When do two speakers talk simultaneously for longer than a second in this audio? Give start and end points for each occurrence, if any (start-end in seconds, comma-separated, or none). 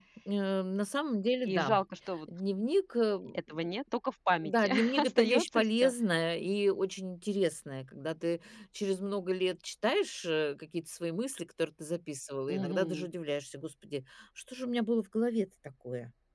4.4-5.9